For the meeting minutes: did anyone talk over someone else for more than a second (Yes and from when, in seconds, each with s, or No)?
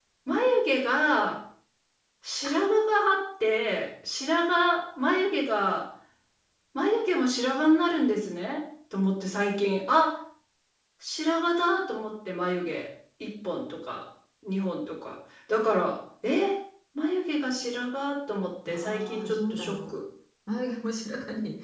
Yes, from 18.7 s